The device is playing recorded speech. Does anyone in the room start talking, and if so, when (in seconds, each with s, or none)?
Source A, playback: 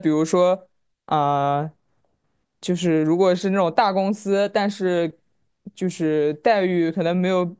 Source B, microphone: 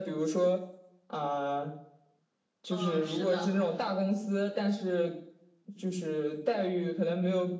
2.7 s